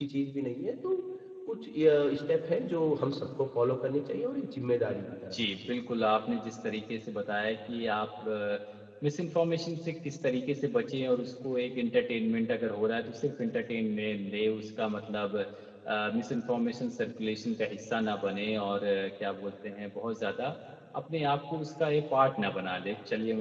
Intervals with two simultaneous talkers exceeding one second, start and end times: none

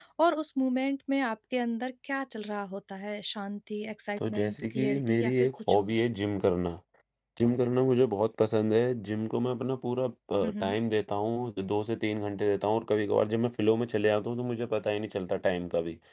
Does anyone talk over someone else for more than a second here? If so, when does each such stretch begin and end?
4.2-5.9

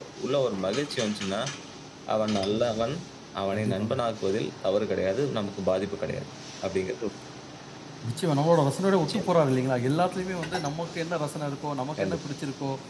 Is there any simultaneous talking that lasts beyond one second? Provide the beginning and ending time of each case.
none

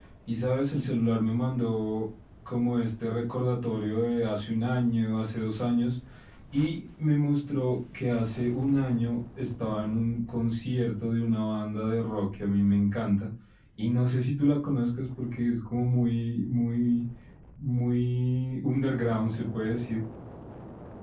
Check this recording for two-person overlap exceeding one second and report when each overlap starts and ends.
none

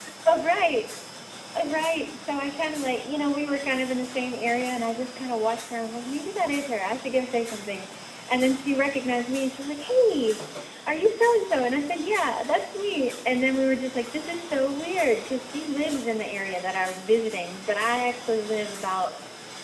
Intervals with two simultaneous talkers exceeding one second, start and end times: none

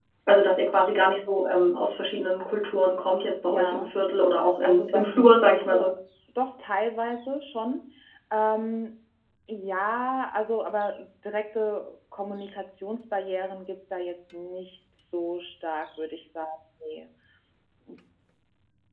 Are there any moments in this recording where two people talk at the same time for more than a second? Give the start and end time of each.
4.6-5.9

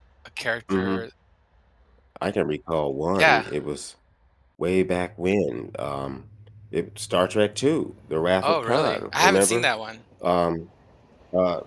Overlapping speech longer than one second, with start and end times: 8.4-9.7

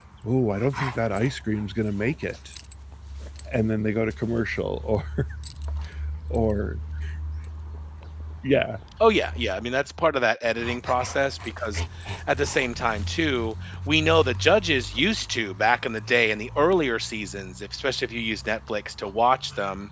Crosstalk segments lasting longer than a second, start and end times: none

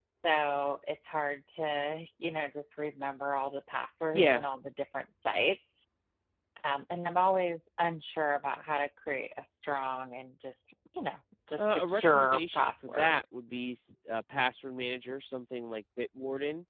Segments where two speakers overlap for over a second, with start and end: 11.6-13.2

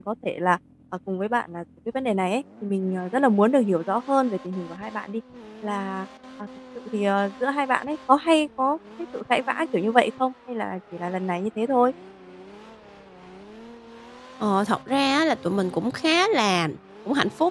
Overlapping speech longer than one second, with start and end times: none

